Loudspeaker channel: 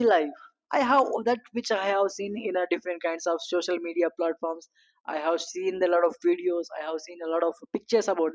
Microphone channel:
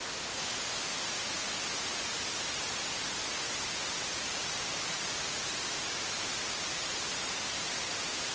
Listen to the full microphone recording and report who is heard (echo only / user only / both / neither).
neither